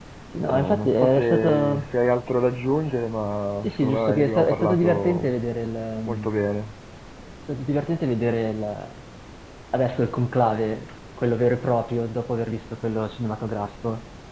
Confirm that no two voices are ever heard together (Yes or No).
No